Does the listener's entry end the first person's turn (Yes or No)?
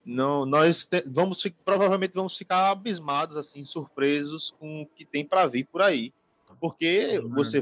No